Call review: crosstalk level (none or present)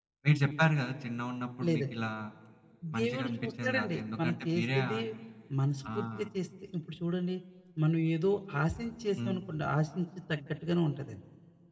present